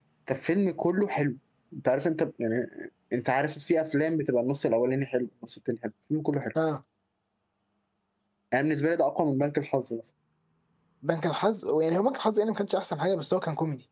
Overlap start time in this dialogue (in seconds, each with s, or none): none